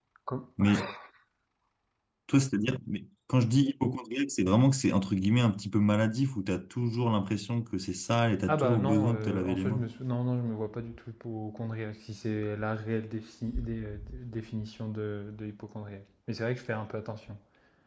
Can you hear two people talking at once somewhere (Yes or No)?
Yes